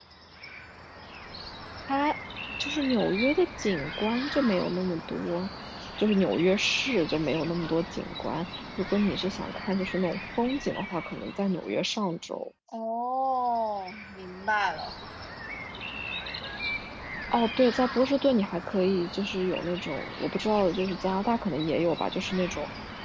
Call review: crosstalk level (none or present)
none